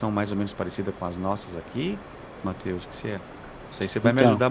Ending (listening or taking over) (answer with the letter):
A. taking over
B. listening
B